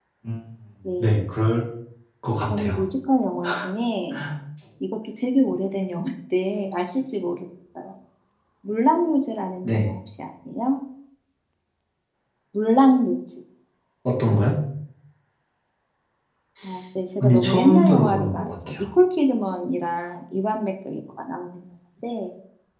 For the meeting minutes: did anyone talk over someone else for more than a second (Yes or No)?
Yes